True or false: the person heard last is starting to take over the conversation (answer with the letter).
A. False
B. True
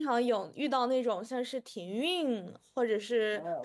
B